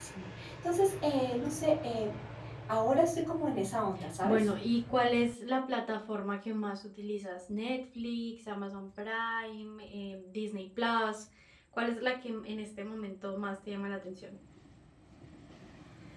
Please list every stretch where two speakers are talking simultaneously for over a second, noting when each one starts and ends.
none

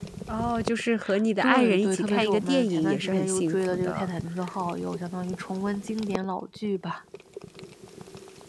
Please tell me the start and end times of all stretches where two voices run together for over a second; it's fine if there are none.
1.4-4.1

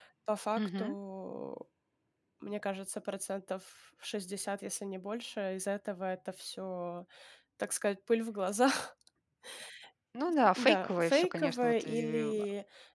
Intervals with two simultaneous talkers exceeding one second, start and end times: 10.6-12.3

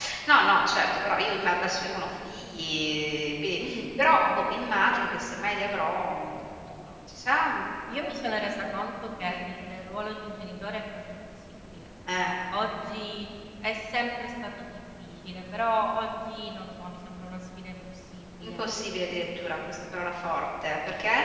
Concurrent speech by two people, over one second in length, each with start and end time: none

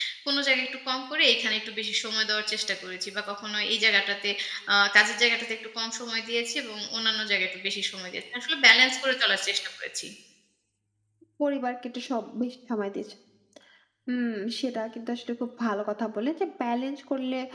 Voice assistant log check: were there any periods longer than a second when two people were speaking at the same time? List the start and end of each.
none

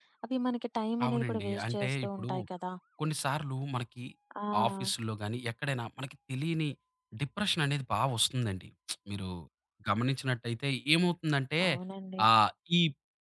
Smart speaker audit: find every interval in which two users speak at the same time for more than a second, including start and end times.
1.1-2.3

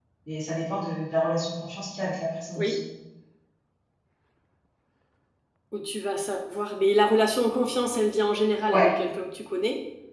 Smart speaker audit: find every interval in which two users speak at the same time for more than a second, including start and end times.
none

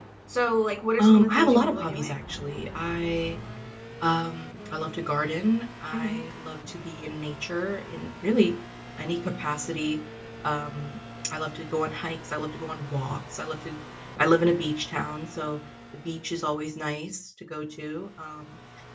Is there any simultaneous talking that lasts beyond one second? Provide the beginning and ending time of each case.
1.0-2.2

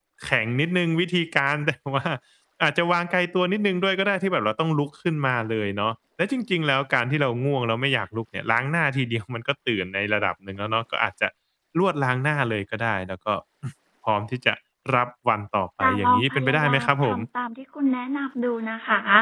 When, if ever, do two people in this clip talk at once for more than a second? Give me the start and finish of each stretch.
15.8-17.2

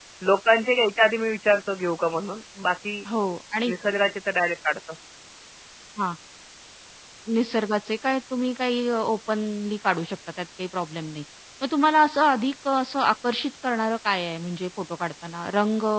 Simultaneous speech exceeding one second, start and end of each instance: none

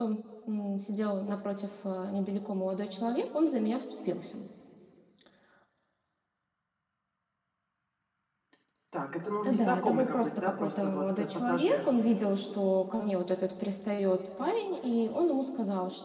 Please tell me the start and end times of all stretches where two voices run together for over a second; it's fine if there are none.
9.4-11.9

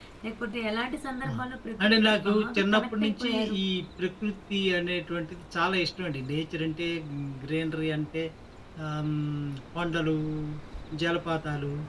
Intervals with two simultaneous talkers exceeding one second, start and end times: 1.8-3.6

